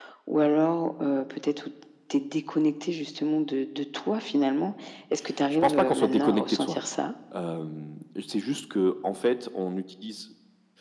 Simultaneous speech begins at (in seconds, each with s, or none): 5.5 s